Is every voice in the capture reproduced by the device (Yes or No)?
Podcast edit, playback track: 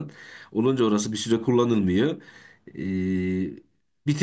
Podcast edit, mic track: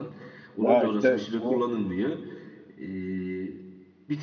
No